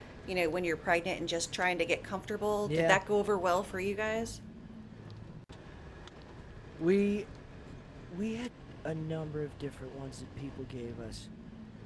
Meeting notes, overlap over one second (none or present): none